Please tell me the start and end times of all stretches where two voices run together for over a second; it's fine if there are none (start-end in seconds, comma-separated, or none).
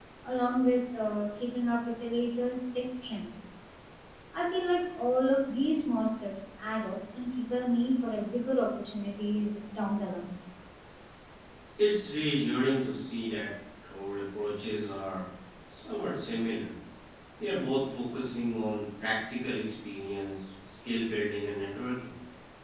none